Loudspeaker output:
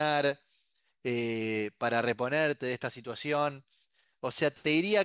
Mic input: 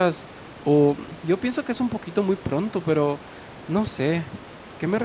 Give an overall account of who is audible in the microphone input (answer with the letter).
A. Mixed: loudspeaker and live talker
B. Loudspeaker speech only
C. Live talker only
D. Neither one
C